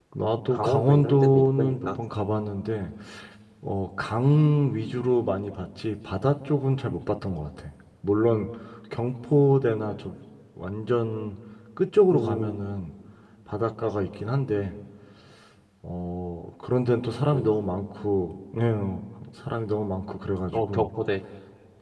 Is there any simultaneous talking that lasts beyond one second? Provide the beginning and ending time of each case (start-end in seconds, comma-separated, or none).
0.5-2.0